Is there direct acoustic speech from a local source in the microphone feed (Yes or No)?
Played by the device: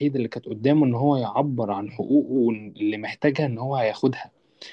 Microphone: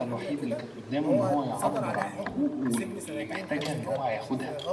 Yes